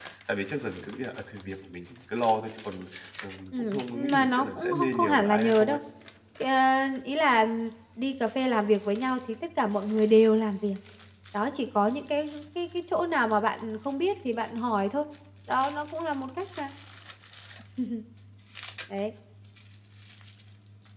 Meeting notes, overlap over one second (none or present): present